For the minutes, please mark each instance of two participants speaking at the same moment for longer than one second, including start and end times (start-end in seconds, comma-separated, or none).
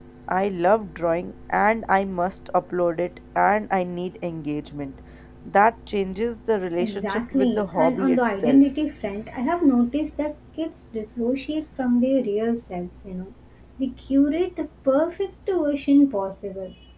6.8-8.6